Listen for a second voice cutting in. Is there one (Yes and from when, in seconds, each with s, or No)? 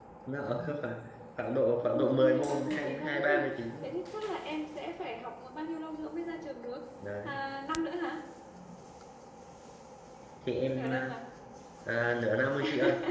Yes, from 1.8 s